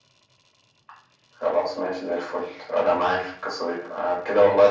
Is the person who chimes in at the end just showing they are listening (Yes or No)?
Yes